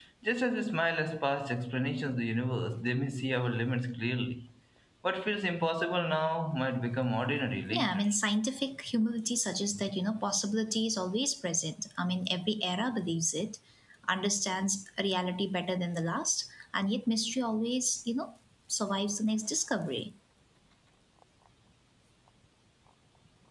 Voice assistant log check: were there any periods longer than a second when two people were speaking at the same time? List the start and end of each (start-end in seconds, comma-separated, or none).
none